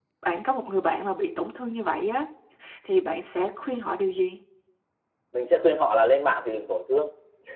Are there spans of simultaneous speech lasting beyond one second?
No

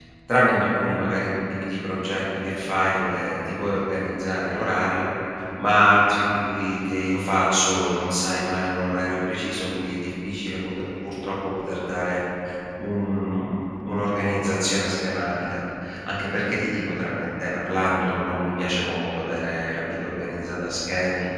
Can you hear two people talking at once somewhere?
No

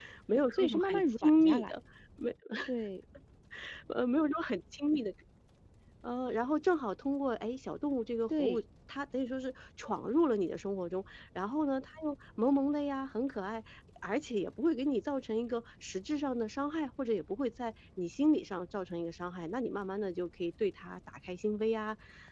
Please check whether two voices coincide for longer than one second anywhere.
Yes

